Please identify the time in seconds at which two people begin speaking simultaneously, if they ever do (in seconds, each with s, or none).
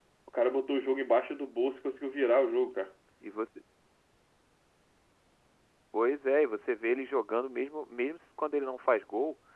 none